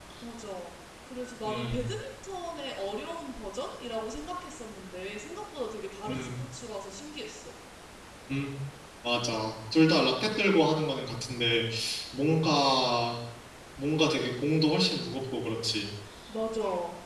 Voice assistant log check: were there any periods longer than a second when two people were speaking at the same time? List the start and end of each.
none

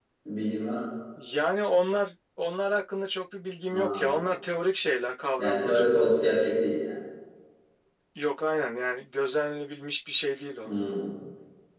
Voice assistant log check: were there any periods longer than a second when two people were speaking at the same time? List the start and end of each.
none

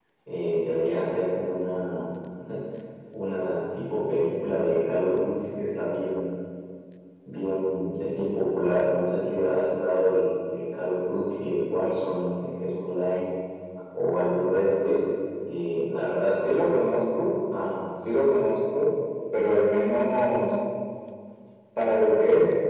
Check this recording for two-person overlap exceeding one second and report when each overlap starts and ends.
none

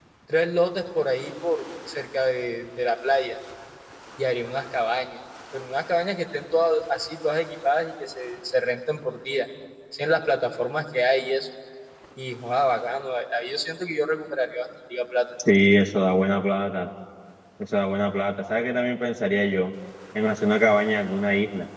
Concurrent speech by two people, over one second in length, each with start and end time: none

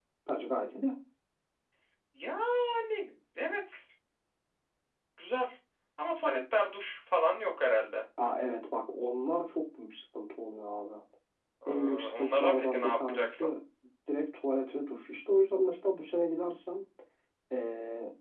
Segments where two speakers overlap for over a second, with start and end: 11.7-13.4

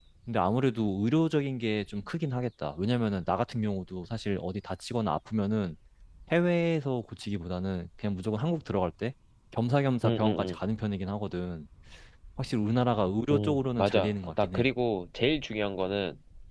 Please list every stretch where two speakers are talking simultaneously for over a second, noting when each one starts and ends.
13.3-14.7

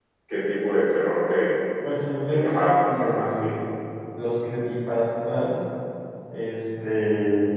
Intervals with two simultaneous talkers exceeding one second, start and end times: 2.3-3.5

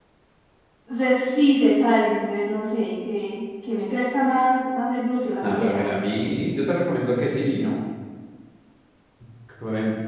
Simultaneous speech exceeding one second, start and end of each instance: none

